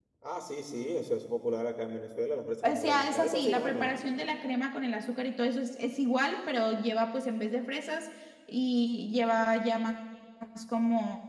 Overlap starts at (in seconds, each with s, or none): 2.6 s